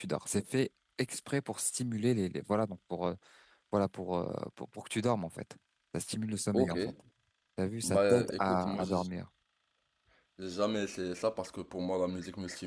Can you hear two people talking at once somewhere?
Yes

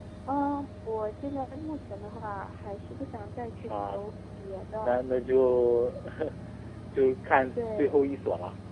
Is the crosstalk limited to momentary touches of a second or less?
Yes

